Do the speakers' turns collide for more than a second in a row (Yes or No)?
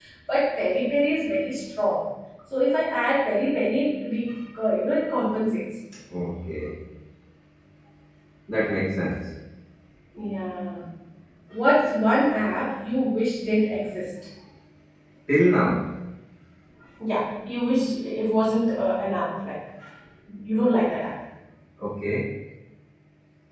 No